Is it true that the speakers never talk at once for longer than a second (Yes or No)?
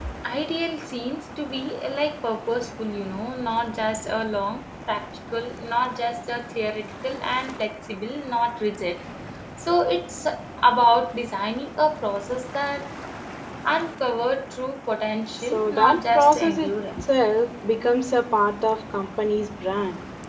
No